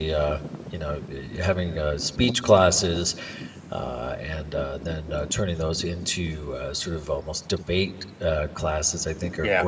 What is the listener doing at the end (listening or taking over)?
listening